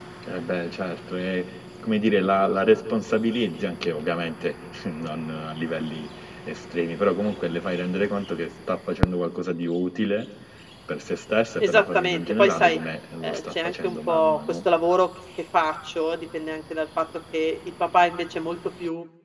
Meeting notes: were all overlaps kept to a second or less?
No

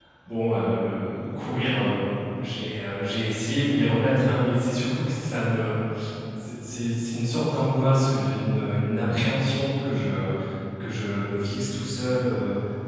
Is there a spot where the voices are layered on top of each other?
No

